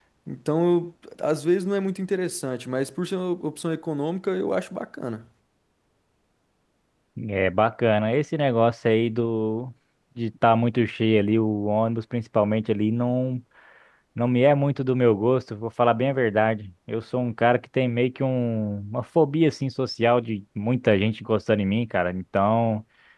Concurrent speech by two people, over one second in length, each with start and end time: none

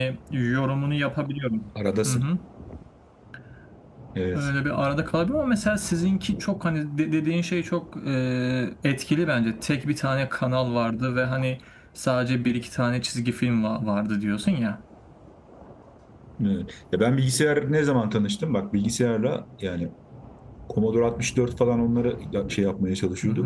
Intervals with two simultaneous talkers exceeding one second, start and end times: none

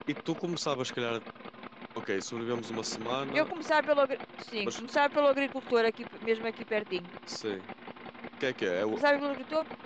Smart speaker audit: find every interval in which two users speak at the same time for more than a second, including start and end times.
none

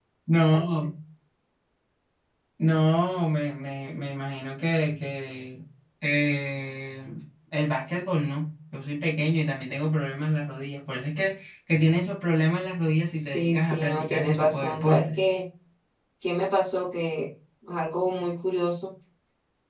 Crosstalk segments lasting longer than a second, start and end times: 13.1-15.2

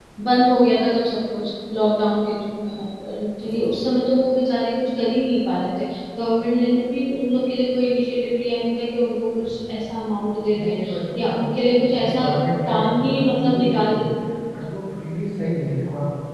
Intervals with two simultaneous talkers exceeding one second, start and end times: 12.7-14.0

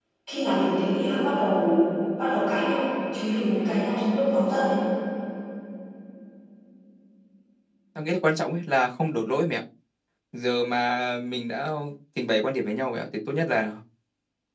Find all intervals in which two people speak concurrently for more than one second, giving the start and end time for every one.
none

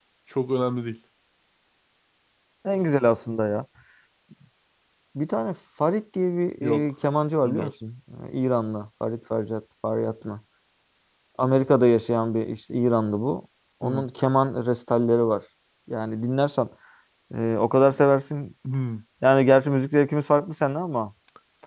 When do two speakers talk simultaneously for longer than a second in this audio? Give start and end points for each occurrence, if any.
none

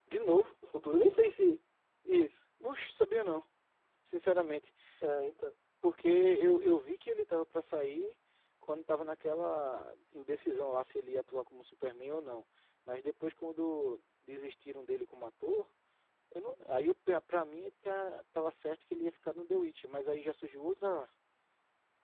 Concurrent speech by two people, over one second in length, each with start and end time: none

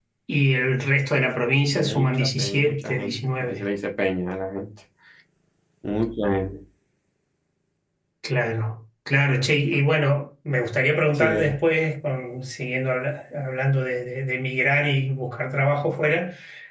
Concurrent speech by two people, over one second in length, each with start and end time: 1.7-3.6

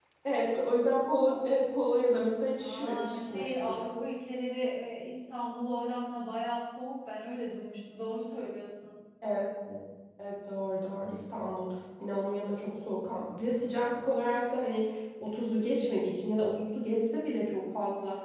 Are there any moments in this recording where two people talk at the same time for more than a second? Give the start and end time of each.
2.6-4.0

